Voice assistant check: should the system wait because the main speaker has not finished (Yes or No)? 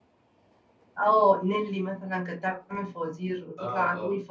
Yes